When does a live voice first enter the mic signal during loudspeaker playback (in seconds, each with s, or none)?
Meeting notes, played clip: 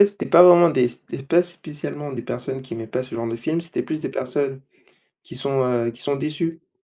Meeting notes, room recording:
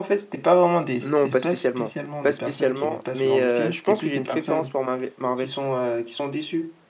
1.0 s